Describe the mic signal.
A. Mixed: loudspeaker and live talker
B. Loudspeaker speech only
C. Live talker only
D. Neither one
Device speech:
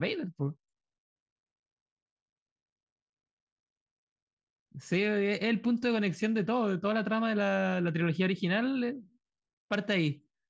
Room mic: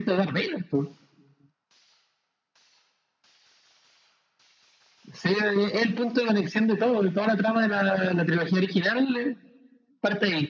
B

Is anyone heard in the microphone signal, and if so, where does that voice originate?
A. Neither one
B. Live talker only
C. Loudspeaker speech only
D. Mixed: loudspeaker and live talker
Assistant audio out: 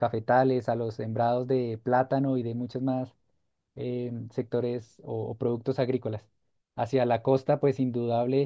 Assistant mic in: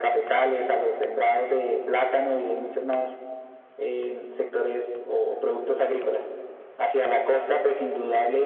C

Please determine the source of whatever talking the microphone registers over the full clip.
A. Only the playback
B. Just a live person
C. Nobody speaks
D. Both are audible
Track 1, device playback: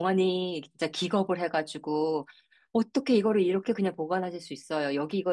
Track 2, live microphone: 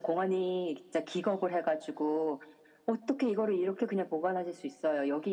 A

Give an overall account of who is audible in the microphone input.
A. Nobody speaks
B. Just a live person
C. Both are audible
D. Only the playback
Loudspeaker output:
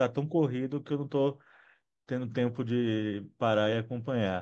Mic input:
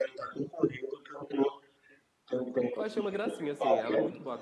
C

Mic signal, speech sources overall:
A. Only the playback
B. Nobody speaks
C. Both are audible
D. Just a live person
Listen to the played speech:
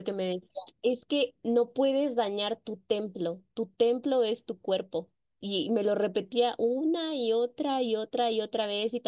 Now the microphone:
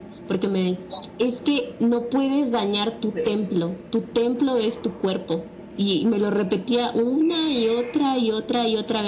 C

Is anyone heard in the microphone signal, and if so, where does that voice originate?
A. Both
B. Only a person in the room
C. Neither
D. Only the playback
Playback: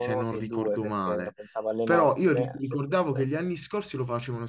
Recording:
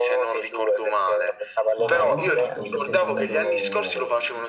A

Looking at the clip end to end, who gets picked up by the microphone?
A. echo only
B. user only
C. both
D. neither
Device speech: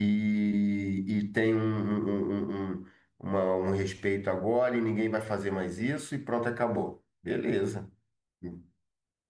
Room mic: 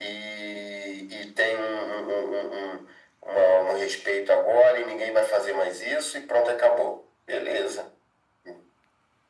A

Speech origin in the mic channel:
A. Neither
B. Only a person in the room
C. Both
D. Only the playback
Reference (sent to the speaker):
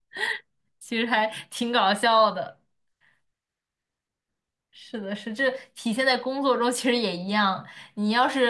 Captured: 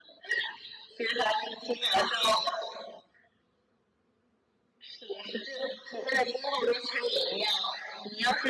D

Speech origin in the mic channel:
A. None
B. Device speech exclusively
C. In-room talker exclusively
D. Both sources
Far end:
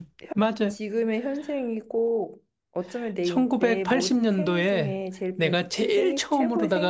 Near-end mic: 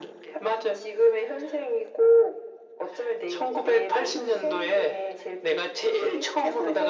B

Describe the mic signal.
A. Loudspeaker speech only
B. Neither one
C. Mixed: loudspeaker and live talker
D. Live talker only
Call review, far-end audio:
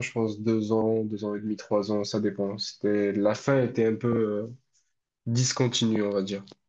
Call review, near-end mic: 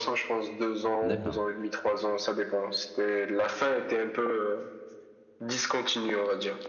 C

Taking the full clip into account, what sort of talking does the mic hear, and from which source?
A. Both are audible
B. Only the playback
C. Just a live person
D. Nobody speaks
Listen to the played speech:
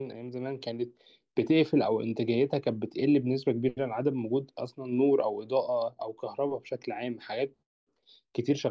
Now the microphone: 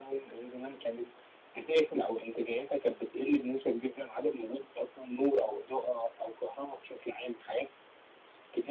B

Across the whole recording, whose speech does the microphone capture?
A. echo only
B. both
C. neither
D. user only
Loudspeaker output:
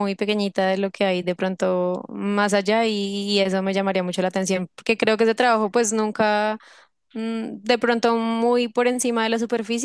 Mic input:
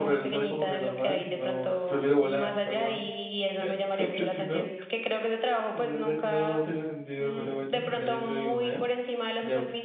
B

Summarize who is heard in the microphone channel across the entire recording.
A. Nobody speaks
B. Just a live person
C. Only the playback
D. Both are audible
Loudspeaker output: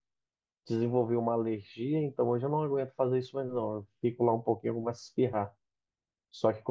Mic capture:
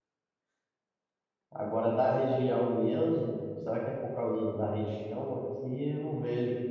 B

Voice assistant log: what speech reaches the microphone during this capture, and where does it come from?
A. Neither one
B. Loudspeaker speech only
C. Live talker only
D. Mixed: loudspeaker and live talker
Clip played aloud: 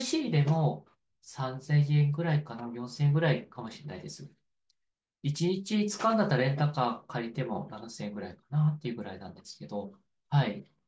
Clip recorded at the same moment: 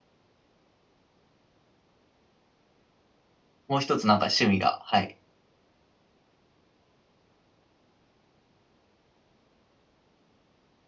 C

